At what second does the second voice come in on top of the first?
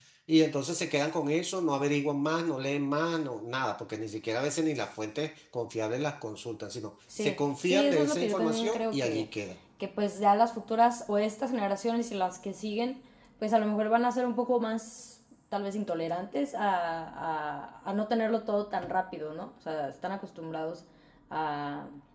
7.1 s

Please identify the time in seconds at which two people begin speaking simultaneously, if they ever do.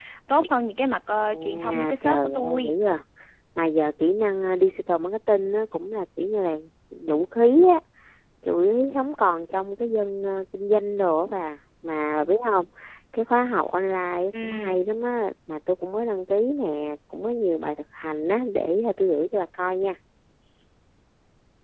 1.2 s

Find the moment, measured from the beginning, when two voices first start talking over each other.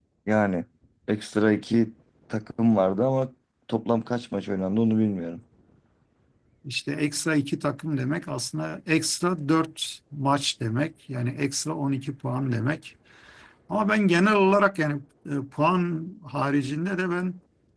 none

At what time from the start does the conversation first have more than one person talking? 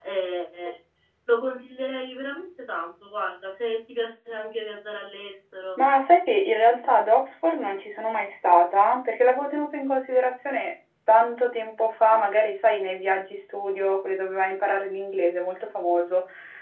none

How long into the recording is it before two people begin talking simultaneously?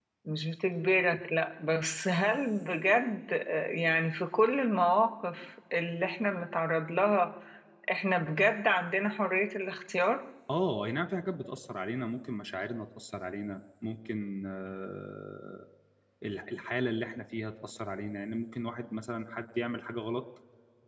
none

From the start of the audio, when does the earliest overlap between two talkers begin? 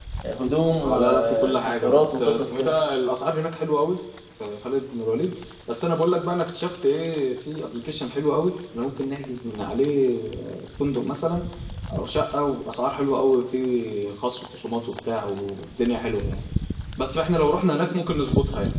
0.8 s

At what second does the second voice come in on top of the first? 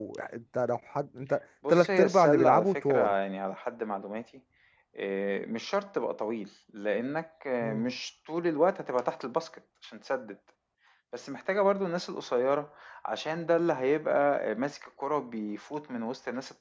1.6 s

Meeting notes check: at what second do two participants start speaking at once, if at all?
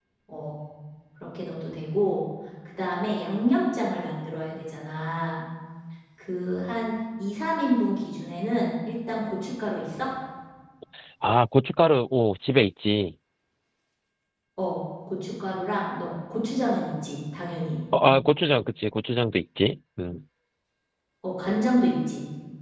none

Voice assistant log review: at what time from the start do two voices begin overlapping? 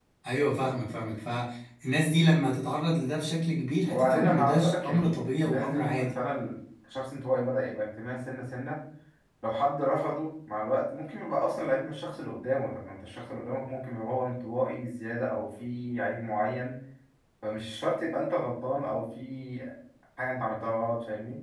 3.9 s

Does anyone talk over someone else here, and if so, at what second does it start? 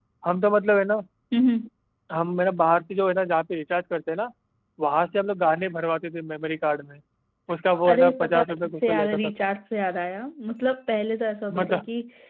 7.9 s

